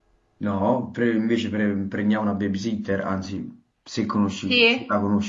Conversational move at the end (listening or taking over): taking over